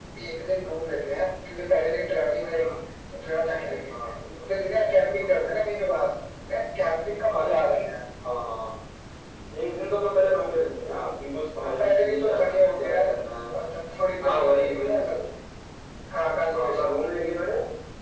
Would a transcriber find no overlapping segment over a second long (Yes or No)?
No